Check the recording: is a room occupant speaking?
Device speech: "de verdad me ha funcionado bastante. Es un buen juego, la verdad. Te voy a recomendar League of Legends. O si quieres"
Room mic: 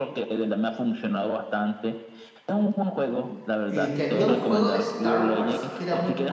Yes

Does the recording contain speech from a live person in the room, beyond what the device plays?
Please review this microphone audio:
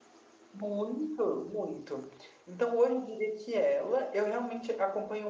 Yes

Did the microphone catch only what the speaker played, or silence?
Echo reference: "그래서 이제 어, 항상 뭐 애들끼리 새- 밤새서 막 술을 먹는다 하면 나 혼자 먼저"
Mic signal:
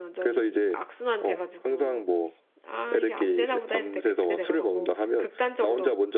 No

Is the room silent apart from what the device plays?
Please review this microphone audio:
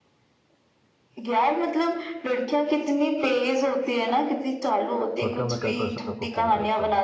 No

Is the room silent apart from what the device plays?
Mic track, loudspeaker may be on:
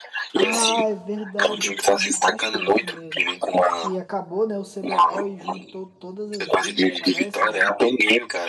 No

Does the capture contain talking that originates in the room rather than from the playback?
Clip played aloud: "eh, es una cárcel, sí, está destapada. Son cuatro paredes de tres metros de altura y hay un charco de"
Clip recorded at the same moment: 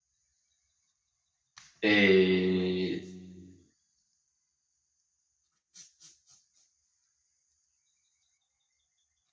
Yes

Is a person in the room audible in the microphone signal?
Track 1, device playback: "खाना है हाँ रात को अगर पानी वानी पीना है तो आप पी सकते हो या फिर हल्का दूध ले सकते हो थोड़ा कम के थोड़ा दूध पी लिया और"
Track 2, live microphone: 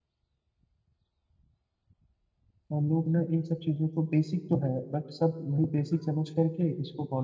Yes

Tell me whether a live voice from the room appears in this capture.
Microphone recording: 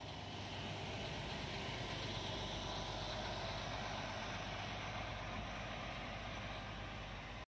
No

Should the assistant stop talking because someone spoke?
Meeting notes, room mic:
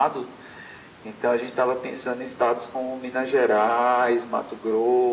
No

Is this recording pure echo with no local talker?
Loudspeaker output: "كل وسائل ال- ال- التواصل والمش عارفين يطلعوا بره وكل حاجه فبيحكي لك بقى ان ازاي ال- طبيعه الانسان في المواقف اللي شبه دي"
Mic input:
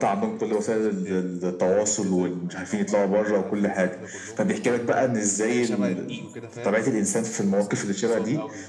No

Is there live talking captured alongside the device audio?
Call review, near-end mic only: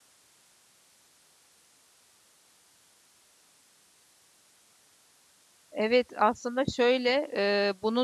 Yes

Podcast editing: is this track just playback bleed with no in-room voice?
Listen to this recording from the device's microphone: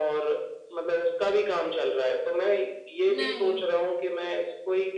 No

